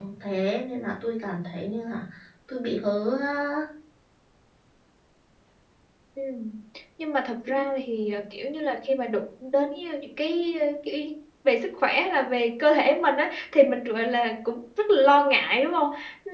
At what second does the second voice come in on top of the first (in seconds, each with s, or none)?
none